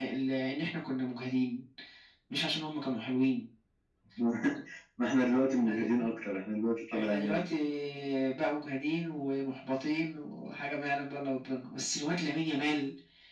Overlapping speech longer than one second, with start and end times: none

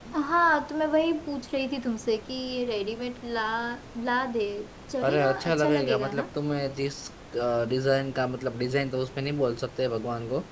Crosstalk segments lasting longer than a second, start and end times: 5.0-6.2

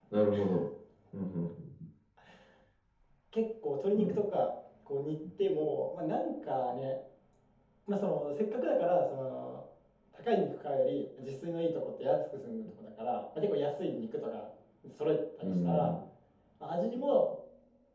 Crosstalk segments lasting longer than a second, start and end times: none

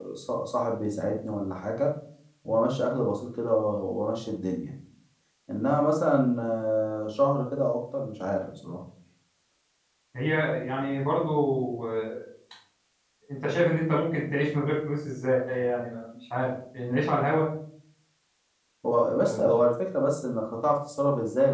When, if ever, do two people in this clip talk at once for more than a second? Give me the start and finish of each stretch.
none

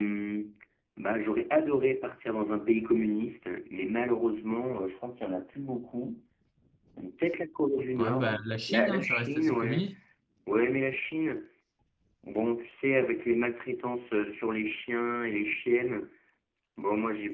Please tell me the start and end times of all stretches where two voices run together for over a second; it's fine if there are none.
8.0-9.9

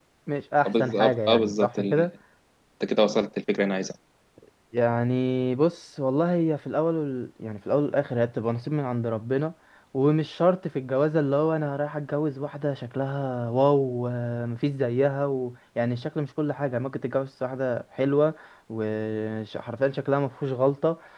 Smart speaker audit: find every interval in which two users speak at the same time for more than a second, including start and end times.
0.6-2.0

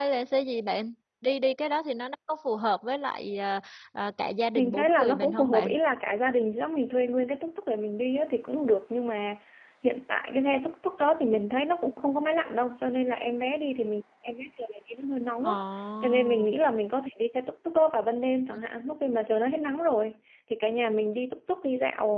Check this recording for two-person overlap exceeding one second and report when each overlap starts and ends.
4.5-5.8

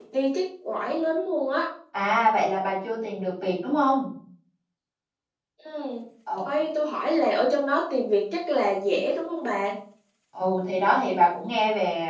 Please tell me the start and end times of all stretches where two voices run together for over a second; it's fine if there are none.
none

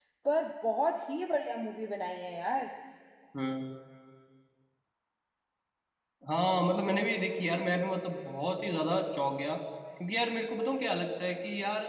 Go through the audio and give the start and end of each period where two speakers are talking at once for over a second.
none

